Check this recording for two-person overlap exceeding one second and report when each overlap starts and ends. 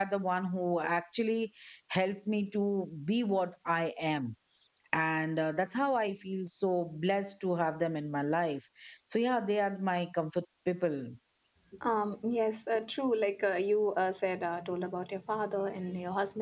none

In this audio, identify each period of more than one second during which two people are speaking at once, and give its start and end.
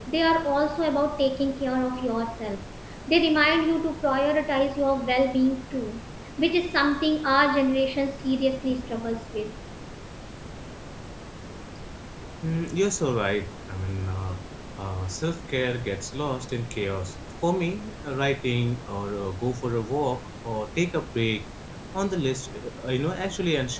none

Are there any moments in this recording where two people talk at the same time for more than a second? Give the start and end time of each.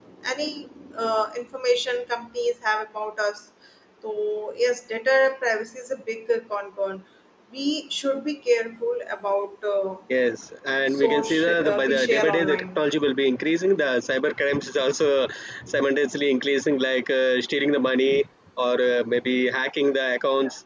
10.9-12.8

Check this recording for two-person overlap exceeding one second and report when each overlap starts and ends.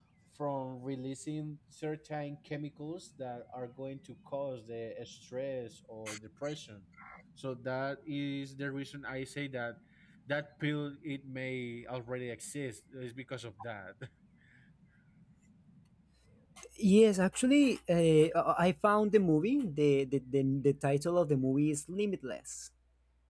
none

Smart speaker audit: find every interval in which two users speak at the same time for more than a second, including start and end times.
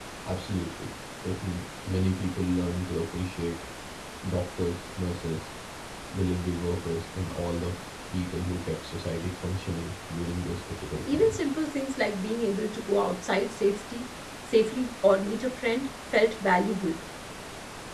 none

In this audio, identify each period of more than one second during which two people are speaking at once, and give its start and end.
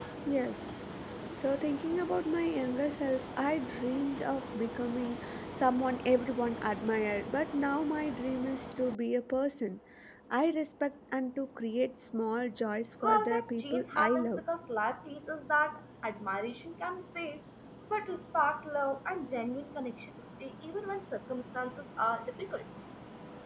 13.0-14.4

